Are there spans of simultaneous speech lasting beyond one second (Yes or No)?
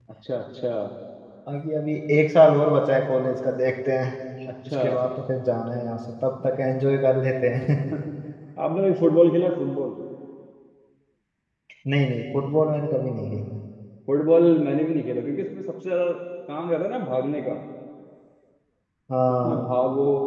No